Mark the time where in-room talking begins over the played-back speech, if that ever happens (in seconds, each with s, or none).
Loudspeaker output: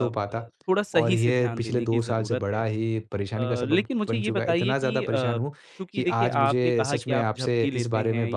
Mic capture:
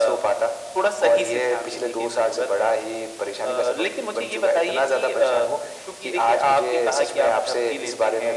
none